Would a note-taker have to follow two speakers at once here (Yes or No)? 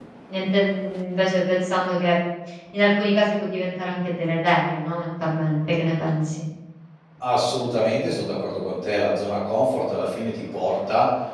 No